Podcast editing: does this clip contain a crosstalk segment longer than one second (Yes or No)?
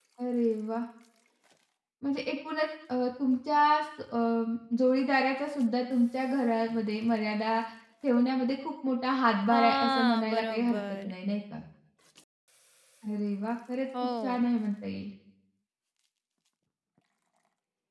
Yes